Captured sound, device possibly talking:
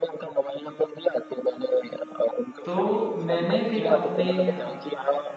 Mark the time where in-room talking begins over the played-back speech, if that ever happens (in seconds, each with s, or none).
2.6 s